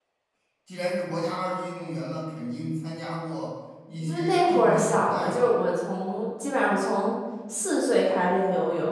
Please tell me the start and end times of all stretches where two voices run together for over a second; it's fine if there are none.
4.0-5.6

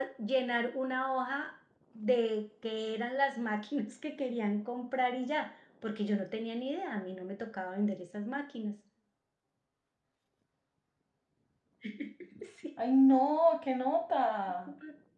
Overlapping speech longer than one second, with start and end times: none

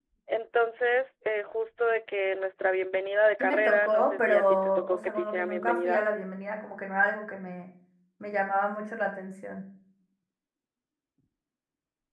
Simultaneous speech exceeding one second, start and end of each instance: 3.4-6.1

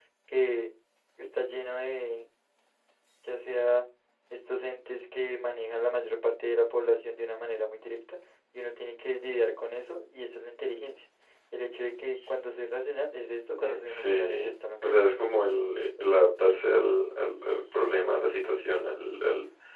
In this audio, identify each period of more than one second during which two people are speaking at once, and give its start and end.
13.6-14.9

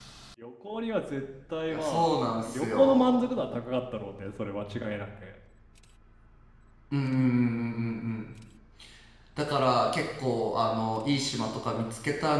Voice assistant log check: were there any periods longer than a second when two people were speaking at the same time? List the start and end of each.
1.7-3.4

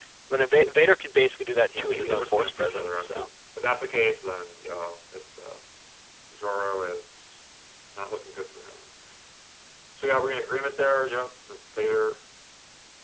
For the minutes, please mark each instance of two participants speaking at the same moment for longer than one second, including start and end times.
1.7-3.3

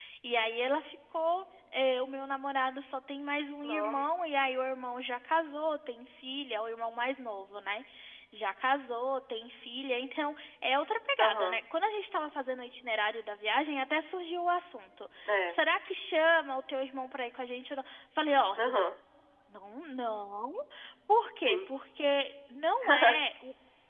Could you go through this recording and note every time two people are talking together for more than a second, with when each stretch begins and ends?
none

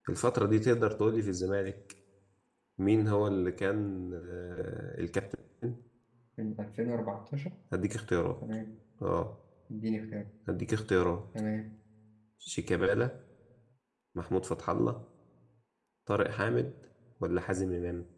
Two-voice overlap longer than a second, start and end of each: none

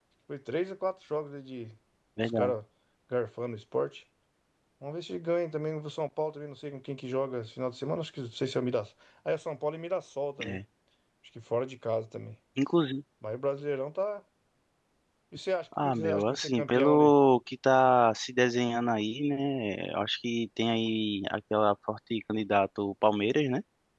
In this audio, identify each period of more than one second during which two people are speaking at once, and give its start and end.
15.8-17.1

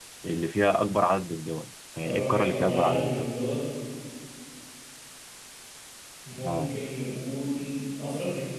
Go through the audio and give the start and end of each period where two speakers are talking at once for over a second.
2.0-3.3

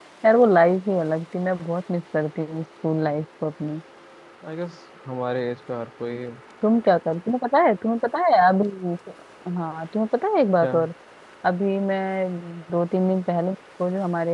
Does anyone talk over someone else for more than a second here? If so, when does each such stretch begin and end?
none

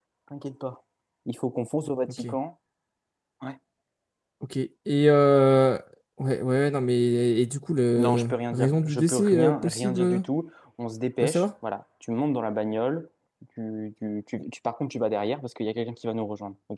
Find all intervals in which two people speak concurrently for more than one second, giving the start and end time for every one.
8.0-10.2

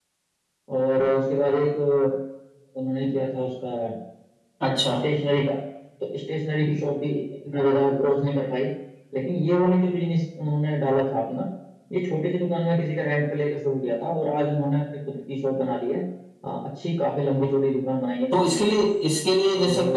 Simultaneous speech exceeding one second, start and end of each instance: none

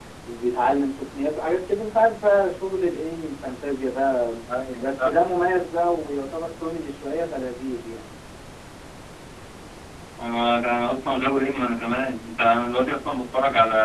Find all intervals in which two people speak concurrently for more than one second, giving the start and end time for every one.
none

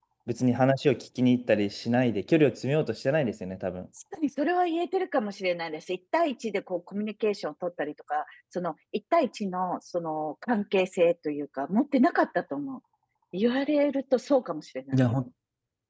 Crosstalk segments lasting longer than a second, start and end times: none

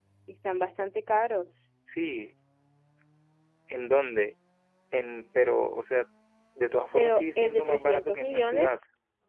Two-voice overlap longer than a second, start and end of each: 7.0-8.7

